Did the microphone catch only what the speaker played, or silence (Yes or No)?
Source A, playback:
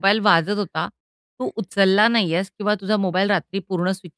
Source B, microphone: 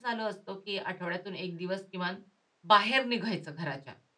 No